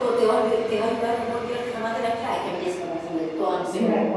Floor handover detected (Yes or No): Yes